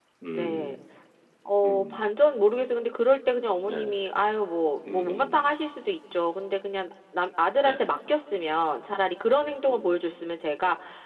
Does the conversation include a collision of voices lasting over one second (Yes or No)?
No